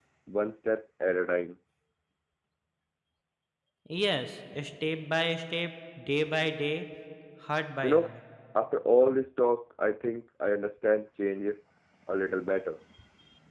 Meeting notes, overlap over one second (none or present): none